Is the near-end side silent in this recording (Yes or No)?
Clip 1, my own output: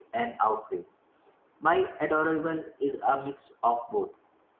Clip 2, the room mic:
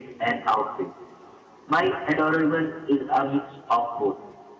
Yes